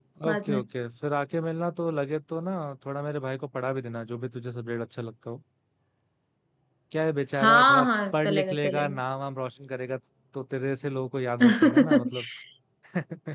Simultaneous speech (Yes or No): Yes